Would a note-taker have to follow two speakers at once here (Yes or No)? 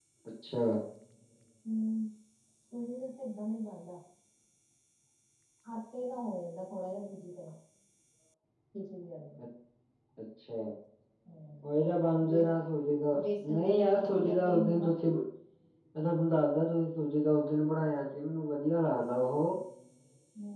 Yes